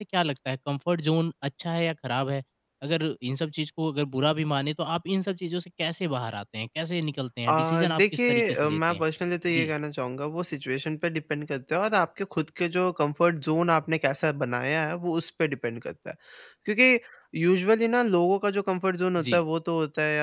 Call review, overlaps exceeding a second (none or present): present